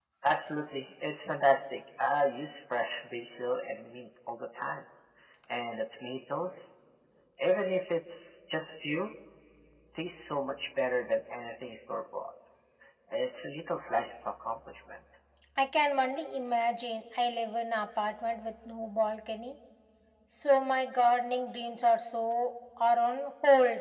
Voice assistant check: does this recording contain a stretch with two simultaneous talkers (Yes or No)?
No